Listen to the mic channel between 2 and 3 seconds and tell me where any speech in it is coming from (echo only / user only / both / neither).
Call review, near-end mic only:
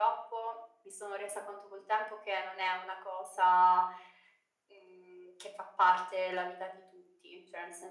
echo only